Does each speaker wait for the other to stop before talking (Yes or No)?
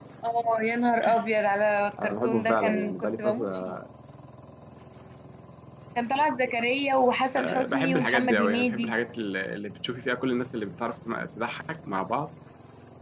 No